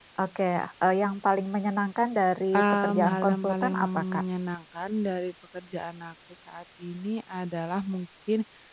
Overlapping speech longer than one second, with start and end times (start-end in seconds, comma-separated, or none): 2.5-4.2